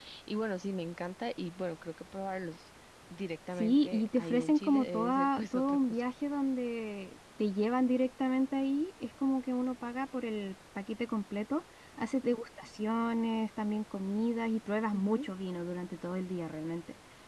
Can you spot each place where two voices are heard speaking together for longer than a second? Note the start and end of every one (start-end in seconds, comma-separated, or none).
3.5-6.0